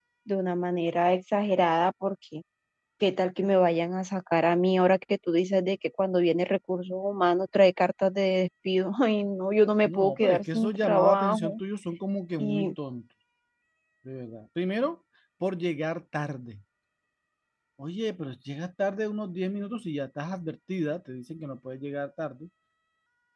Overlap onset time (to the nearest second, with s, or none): 10 s